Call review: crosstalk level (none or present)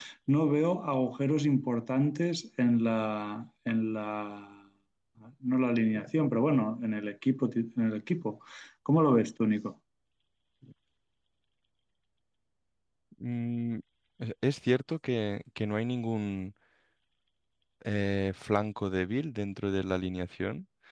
none